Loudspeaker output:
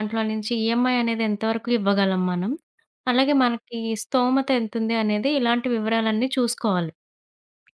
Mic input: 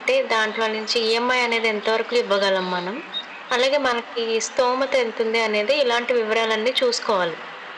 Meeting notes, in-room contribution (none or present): none